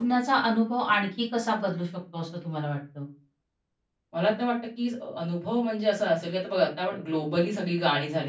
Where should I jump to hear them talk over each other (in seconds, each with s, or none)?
none